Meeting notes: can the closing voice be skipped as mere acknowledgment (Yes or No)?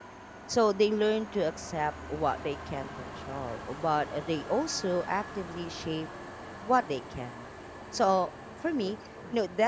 Yes